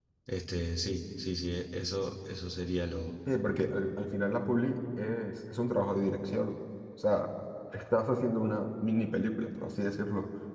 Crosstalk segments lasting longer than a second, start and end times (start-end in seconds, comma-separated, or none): none